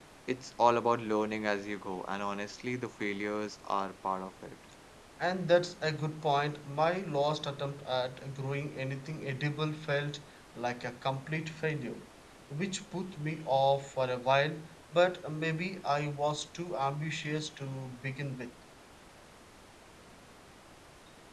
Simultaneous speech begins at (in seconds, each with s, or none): none